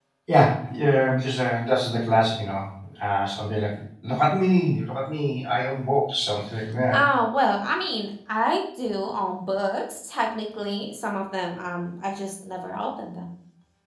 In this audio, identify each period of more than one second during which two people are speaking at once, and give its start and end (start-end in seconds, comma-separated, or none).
none